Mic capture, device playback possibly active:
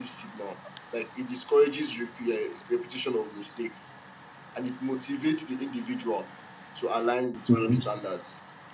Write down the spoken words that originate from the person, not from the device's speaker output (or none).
Hmm,